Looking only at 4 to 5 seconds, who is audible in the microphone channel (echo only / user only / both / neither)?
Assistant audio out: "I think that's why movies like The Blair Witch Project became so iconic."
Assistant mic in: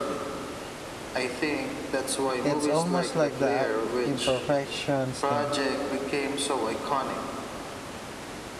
both